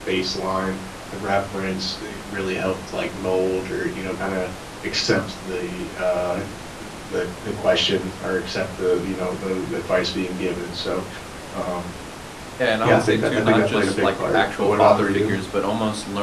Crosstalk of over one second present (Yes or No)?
Yes